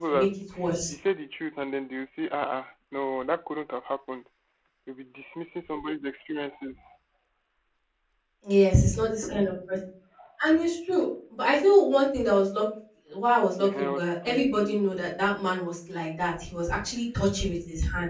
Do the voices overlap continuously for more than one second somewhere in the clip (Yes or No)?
Yes